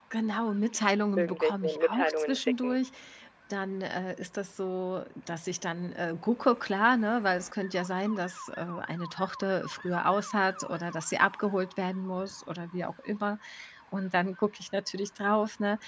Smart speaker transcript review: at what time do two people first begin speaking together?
1.2 s

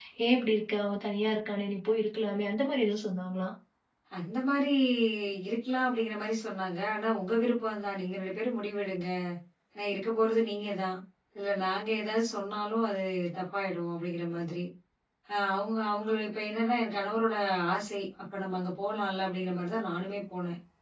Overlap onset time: none

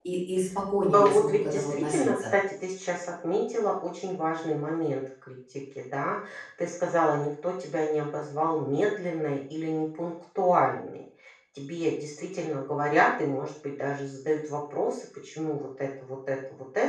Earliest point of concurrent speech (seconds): 0.9 s

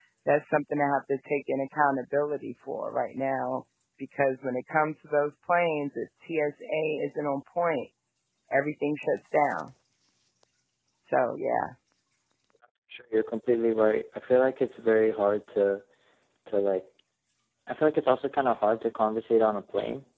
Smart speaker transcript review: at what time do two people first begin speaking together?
none

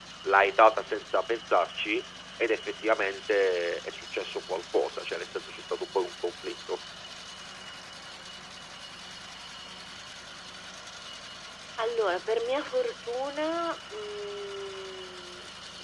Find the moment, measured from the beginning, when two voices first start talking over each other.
none

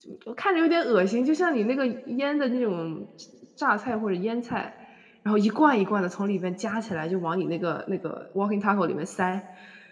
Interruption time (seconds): none

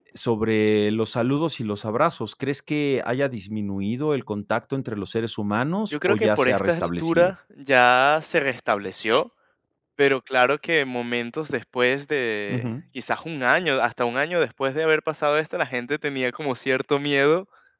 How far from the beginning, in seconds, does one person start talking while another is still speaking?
5.9 s

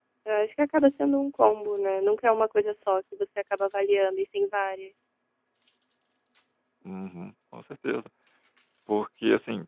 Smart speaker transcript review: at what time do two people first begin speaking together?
none

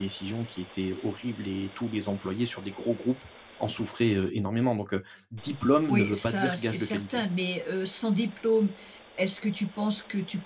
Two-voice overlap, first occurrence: 5.9 s

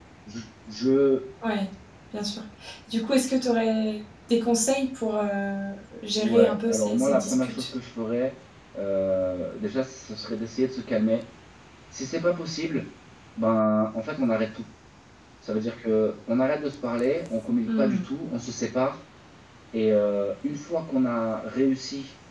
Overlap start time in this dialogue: 6.2 s

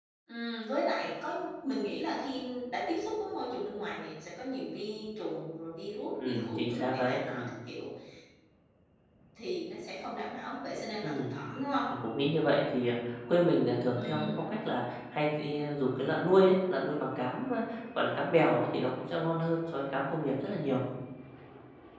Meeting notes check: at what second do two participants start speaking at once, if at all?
6.2 s

